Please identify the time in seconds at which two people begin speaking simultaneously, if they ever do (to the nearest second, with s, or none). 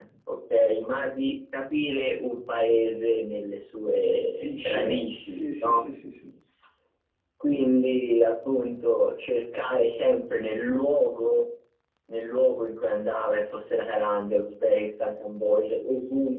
4 s